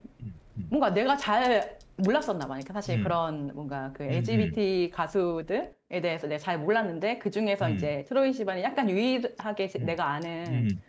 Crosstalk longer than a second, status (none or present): none